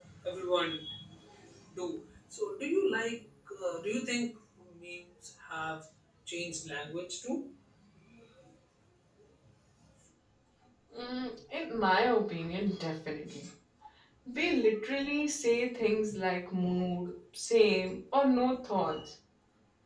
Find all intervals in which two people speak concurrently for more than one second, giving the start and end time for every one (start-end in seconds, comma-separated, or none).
none